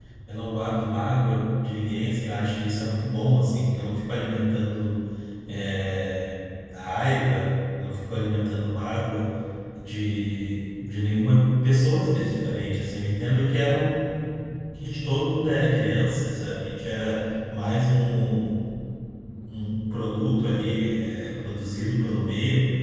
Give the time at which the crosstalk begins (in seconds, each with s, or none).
none